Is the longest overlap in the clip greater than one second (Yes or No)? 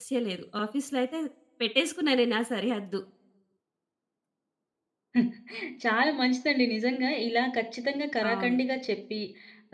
No